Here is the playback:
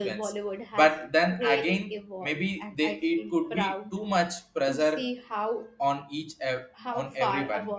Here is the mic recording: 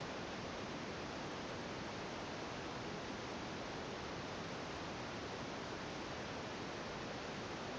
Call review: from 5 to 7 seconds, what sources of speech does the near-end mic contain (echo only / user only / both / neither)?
neither